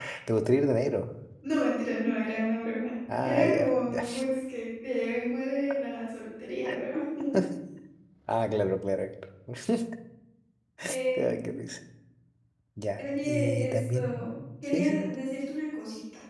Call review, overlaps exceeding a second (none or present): present